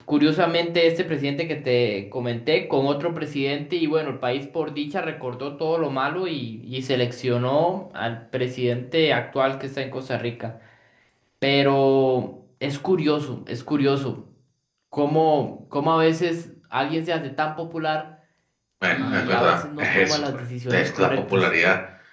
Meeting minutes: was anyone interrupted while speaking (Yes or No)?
Yes